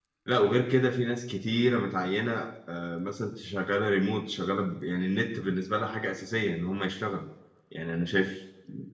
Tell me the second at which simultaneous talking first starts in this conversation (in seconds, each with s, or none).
none